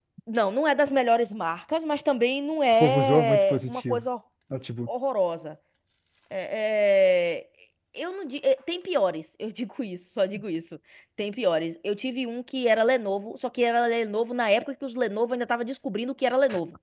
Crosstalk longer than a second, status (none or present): present